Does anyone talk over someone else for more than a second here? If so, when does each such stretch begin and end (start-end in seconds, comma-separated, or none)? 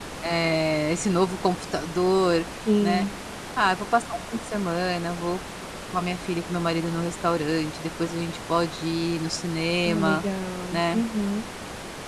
none